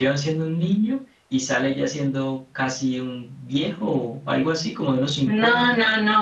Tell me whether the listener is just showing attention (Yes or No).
No